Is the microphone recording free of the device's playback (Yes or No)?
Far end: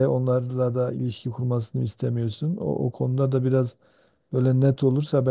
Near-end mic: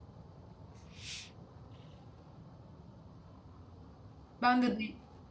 Yes